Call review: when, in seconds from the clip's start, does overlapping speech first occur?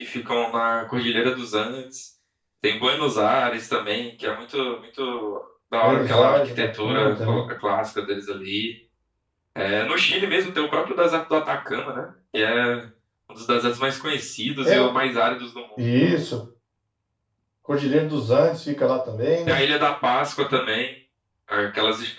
5.8 s

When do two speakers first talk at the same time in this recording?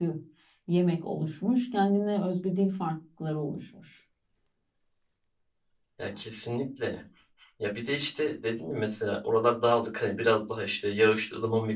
none

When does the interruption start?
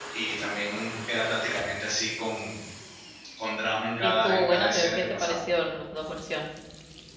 4.0 s

